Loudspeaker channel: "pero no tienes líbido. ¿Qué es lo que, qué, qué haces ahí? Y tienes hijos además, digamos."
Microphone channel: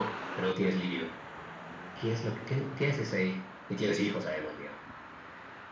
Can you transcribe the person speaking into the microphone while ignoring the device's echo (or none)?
none